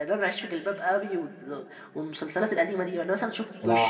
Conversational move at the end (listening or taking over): taking over